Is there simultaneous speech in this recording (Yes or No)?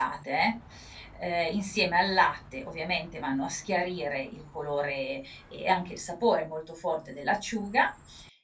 No